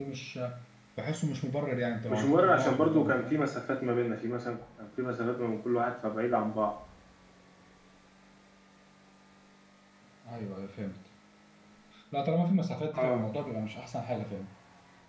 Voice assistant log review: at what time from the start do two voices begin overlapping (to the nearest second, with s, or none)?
2 s